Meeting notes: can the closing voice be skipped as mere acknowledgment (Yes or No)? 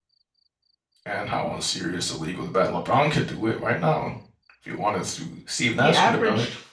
No